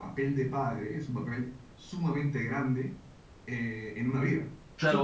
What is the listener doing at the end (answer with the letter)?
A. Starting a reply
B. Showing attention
A